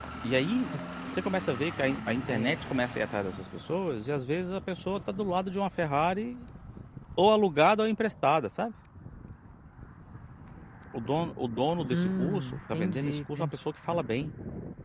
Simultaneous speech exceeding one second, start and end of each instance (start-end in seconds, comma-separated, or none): 11.9-13.5